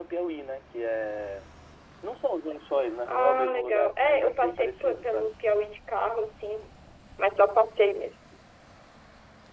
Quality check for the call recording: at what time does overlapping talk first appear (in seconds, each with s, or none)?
3.1 s